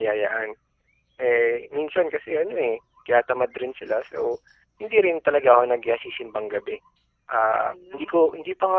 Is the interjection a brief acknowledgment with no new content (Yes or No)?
Yes